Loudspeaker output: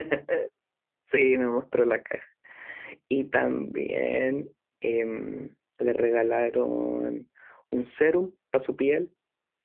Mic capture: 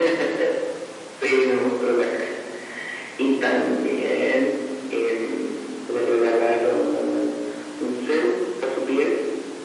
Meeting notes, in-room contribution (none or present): none